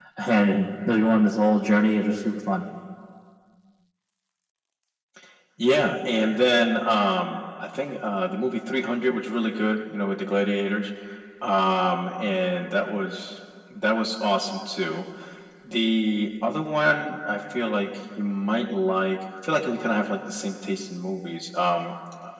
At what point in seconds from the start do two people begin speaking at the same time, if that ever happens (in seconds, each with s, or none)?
none